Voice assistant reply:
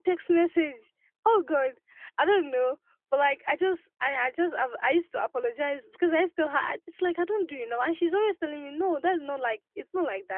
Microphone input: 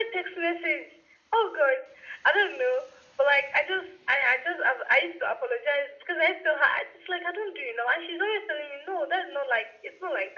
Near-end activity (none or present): none